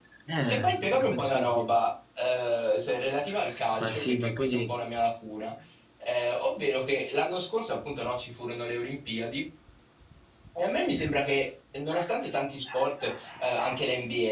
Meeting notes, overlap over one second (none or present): present